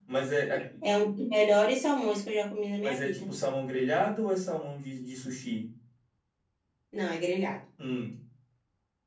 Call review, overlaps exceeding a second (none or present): none